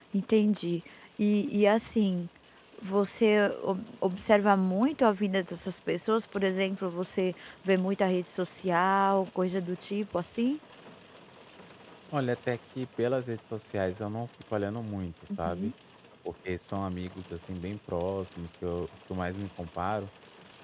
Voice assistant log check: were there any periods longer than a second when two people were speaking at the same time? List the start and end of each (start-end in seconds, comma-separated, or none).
none